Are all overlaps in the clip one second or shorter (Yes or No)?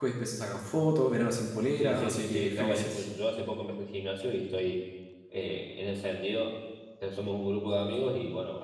No